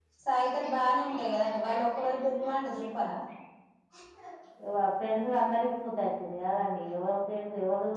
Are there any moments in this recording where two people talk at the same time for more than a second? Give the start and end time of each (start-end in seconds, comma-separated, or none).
none